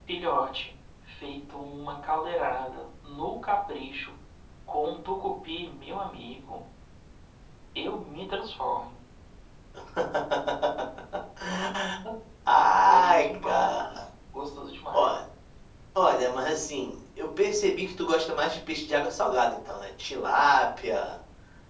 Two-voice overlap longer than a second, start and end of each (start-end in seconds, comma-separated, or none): 12.5-13.9